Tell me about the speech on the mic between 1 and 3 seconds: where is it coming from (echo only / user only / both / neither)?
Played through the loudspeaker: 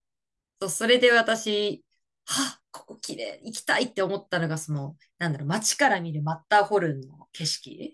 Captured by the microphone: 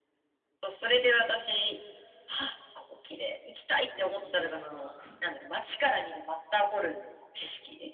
echo only